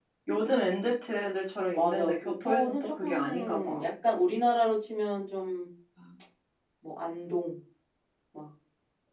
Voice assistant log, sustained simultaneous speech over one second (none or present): present